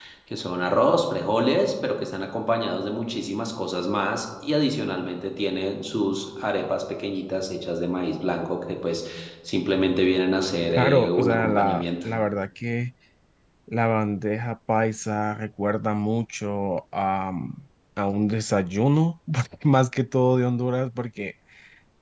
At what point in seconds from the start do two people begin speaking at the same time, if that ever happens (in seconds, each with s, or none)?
10.7 s